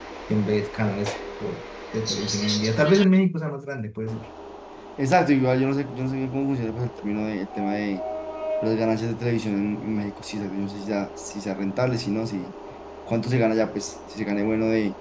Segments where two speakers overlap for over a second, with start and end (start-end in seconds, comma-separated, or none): none